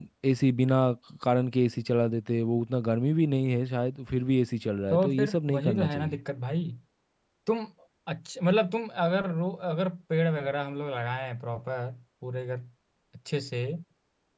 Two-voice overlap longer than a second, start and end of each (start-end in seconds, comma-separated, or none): 4.9-6.2